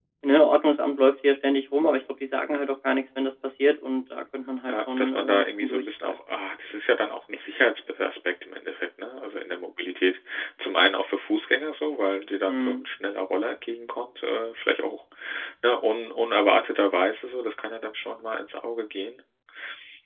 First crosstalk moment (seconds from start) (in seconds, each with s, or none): 4.7 s